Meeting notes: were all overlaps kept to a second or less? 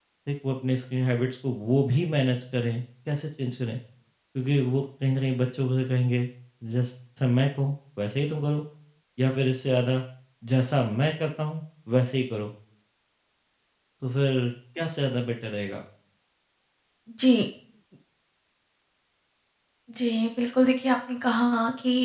Yes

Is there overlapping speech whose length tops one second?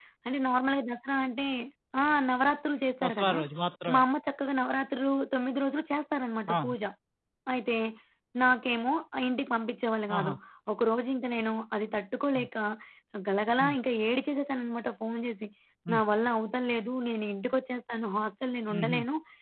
No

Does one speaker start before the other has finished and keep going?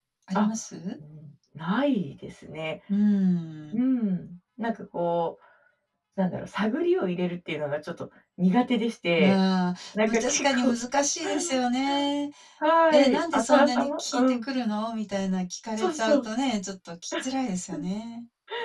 Yes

